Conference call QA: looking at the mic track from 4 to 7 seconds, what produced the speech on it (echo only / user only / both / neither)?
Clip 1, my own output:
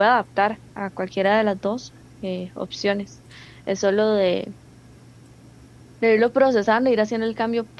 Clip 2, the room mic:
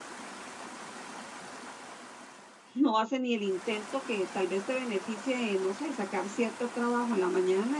user only